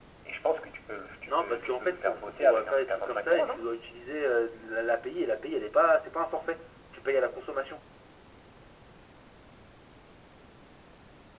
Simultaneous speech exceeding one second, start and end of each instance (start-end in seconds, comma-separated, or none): 1.2-3.6